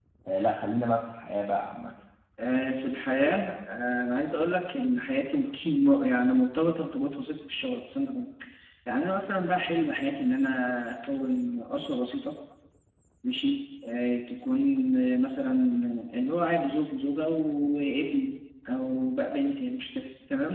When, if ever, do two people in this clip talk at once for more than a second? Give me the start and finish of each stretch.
none

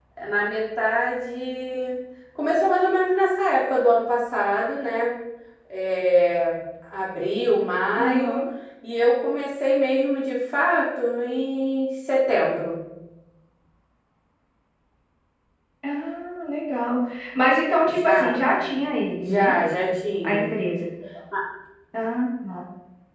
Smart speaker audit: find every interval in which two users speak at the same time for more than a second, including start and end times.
none

